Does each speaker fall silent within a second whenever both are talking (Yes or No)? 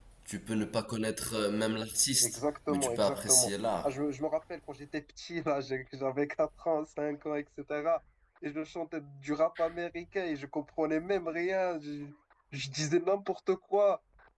No